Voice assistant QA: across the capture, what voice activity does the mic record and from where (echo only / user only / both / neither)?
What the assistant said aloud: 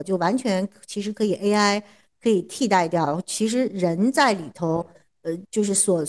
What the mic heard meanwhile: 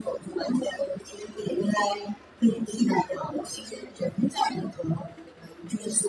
echo only